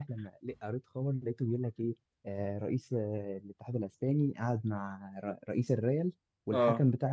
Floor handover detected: No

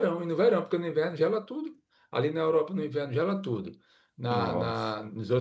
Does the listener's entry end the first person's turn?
No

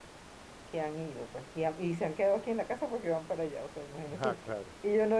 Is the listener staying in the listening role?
Yes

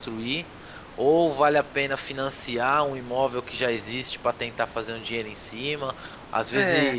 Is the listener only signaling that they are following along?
Yes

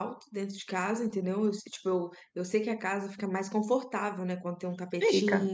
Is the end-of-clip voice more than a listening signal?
No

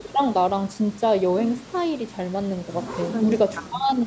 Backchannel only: Yes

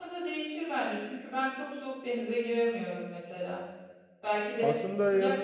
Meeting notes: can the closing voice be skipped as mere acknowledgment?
Yes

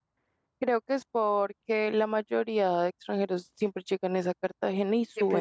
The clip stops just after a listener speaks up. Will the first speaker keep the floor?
No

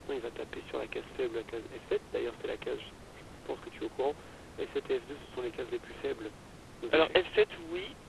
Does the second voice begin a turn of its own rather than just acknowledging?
Yes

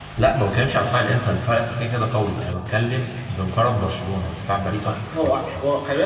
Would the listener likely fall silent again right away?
No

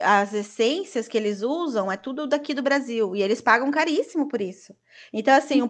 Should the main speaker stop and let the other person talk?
No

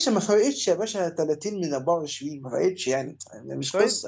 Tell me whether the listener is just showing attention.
No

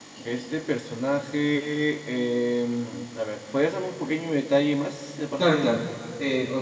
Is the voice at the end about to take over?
Yes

